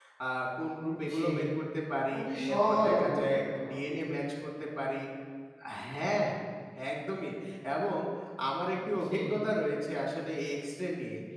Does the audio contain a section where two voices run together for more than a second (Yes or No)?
Yes